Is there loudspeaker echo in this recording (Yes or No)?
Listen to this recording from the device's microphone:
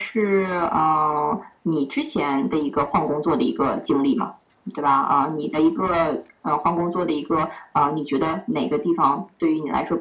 Yes